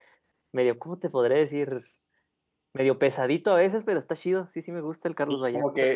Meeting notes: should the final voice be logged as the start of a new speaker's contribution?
Yes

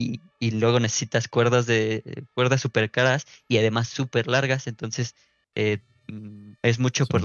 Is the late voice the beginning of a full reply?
No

